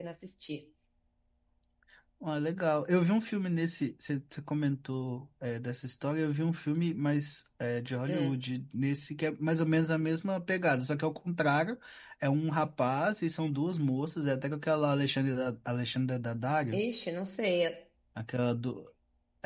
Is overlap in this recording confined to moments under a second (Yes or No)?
Yes